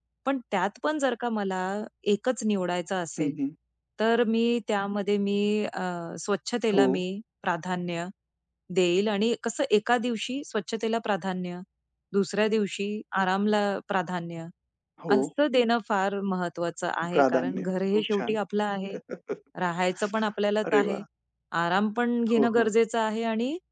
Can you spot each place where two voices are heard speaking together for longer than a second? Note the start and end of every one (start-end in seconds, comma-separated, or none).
17.1-18.4